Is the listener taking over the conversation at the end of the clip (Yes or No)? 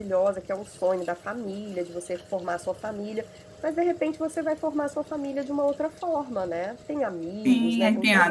Yes